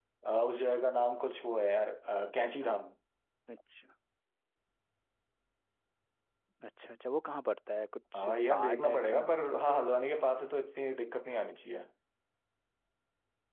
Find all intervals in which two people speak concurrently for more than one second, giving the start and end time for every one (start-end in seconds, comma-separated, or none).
8.2-9.8